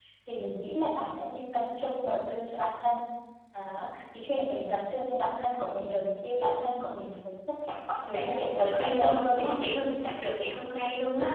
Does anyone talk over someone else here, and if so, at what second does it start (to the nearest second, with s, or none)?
8 s